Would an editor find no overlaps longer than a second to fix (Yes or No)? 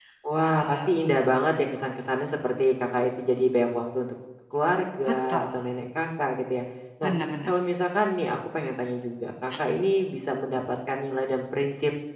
Yes